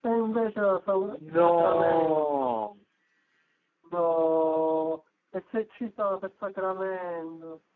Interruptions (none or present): present